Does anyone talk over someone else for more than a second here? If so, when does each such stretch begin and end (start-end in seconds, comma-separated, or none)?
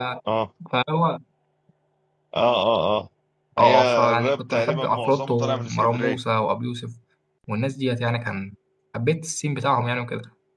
3.6-6.2